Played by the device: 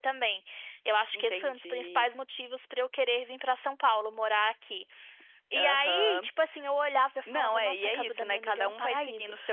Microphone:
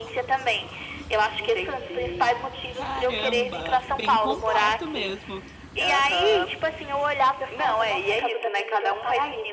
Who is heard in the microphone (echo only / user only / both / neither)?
both